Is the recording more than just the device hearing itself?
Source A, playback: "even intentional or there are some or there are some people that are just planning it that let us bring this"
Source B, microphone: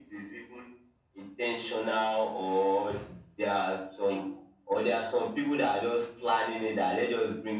No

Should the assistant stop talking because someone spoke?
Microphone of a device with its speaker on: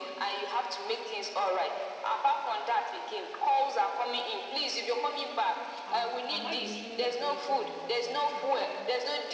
Yes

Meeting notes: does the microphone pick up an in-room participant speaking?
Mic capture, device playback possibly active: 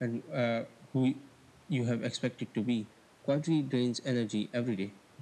No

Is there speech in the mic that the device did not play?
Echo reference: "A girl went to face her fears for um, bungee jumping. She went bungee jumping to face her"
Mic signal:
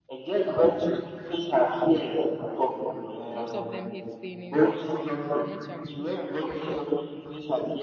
Yes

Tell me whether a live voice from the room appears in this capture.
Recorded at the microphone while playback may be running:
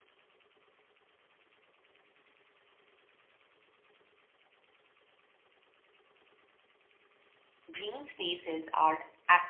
Yes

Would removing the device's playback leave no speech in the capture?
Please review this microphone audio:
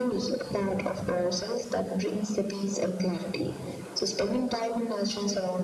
Yes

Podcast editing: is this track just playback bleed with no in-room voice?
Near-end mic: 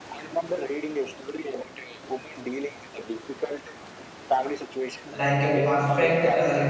No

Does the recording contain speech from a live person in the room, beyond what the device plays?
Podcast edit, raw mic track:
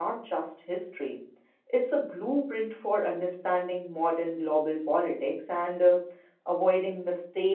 Yes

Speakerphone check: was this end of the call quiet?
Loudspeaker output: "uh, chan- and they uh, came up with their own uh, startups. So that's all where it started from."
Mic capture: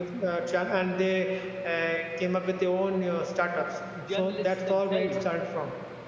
No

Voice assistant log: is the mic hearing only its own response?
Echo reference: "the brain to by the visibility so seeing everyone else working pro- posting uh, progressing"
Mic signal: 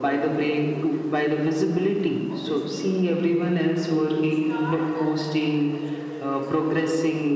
No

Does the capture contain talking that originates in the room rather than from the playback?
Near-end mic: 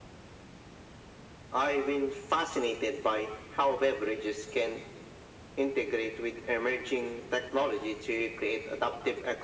No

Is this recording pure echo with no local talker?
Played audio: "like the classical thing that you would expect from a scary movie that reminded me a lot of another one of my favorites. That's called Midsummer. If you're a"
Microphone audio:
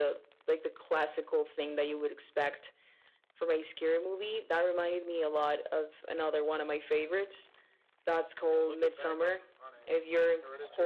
No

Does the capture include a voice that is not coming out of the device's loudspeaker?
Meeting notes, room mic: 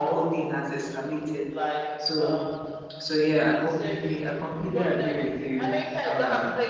Yes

